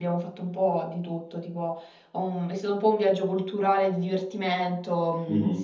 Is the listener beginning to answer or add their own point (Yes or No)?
No